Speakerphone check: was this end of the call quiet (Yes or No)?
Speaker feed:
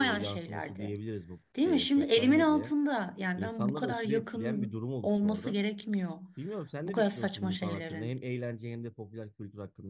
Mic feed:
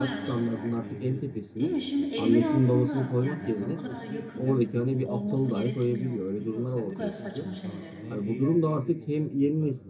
No